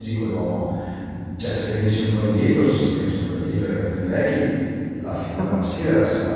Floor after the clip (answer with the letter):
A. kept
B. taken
A